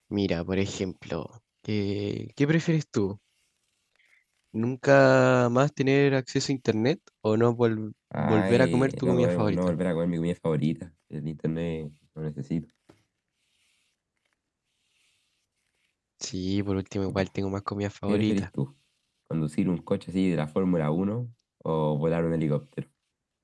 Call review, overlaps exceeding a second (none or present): present